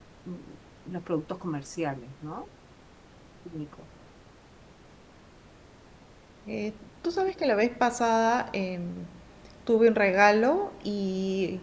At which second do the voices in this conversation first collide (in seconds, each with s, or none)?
none